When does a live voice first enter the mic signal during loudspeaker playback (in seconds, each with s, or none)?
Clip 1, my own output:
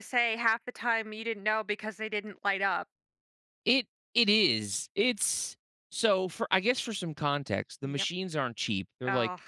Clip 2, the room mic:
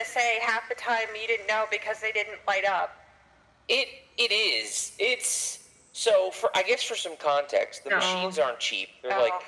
7.9 s